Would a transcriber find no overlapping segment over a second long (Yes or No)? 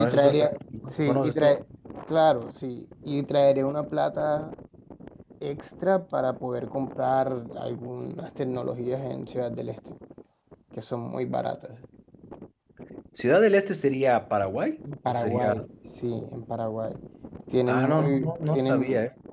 No